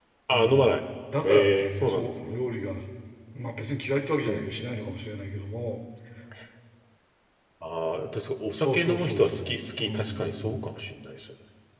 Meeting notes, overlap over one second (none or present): present